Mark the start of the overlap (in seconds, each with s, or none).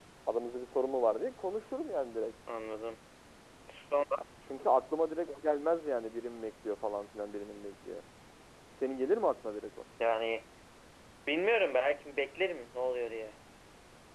none